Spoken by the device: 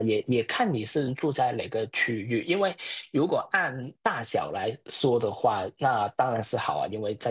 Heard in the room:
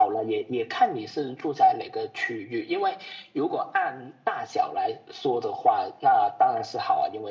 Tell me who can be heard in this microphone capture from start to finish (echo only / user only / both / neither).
echo only